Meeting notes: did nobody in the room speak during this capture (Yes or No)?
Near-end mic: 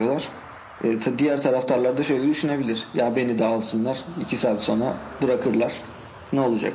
Yes